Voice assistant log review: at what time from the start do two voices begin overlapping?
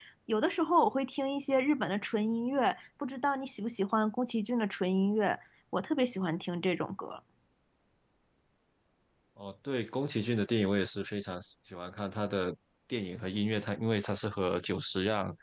none

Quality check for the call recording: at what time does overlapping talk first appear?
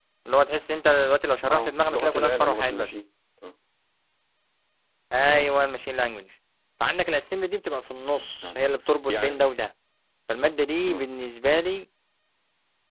1.5 s

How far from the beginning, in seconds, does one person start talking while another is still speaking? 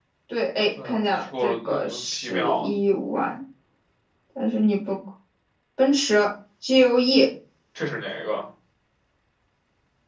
0.8 s

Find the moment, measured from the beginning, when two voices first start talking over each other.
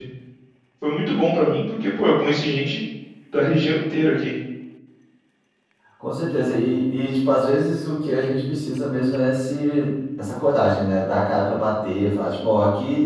none

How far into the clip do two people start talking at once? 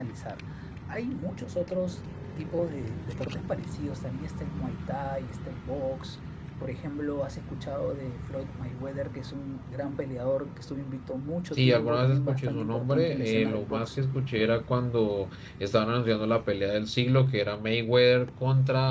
11.5 s

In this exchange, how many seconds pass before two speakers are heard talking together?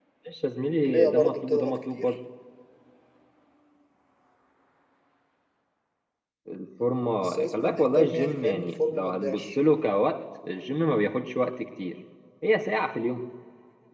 0.8 s

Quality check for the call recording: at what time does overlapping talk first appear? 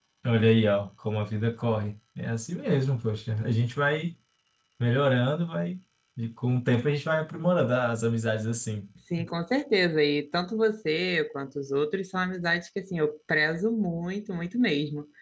none

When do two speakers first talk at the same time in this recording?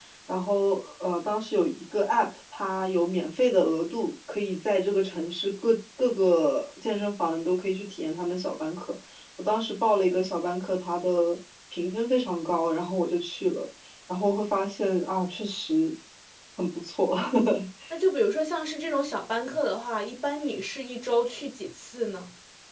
none

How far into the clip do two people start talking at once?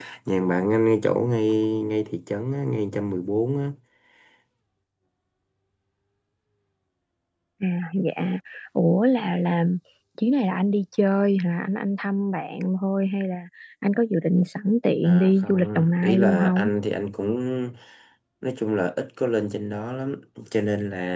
15.0 s

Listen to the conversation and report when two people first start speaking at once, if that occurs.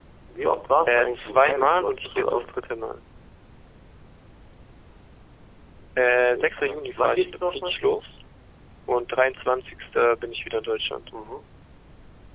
0.8 s

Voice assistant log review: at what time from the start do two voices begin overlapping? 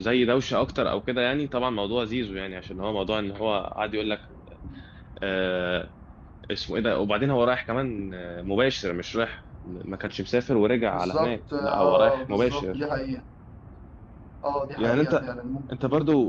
10.9 s

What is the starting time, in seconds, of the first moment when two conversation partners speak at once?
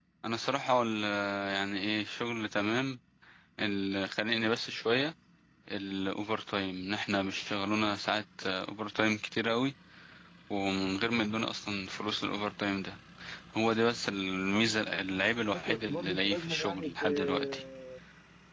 15.5 s

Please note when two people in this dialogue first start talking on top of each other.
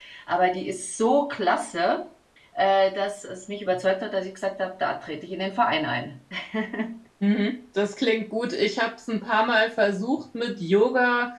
none

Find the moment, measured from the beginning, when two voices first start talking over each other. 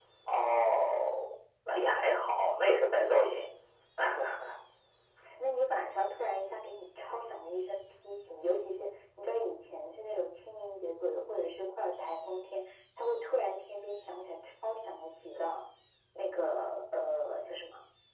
none

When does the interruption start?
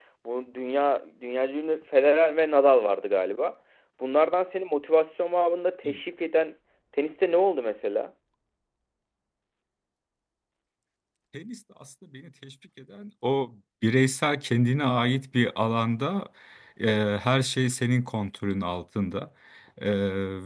none

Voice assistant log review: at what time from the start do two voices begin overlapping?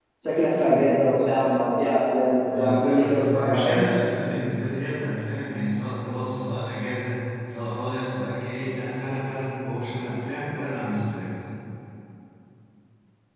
2.5 s

